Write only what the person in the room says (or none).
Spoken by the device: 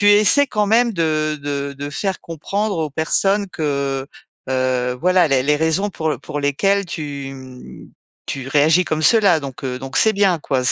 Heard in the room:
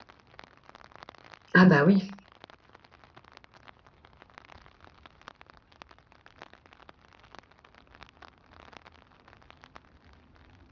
Ah bah, oui.